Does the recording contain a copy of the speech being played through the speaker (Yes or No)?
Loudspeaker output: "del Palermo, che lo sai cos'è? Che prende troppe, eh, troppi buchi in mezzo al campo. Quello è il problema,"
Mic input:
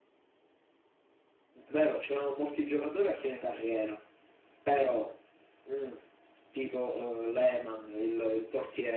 No